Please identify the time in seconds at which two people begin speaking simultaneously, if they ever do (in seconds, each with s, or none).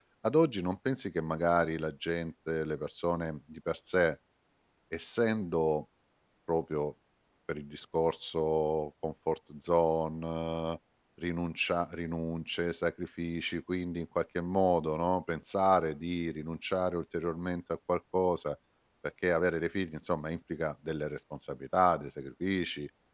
none